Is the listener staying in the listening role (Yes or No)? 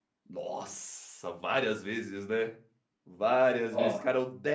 Yes